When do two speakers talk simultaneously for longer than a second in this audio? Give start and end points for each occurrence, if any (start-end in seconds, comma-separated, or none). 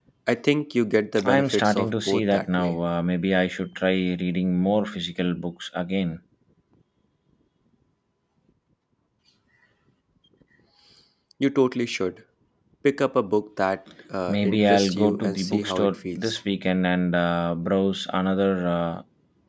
1.2-2.8, 14.3-16.4